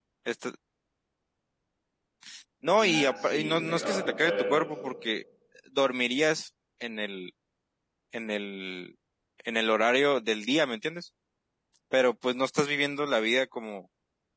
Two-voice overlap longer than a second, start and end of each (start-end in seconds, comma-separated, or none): 2.8-4.9